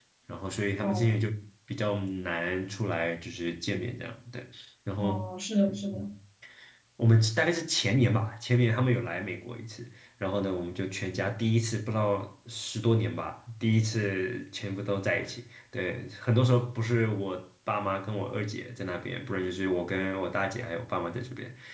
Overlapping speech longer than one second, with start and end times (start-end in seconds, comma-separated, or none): none